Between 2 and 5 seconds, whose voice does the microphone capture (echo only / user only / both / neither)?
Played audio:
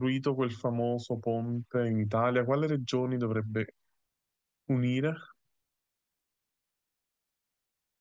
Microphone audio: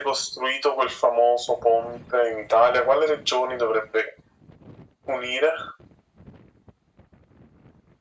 echo only